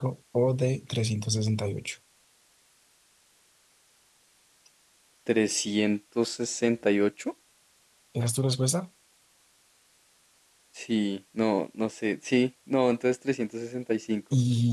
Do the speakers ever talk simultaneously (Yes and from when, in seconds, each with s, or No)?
No